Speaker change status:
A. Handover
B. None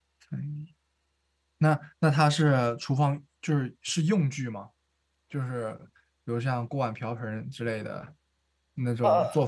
B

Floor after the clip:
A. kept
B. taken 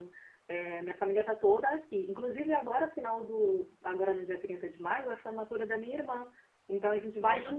A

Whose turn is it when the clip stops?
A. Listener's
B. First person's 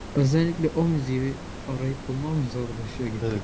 A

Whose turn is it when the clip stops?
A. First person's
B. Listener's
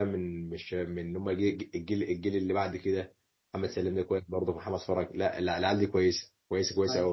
B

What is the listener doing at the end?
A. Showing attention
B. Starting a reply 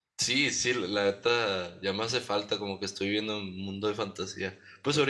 A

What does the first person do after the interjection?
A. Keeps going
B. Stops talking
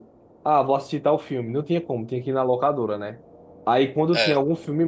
A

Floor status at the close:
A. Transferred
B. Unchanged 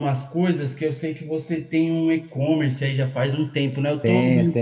B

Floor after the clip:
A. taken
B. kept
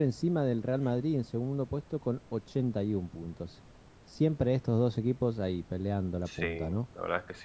A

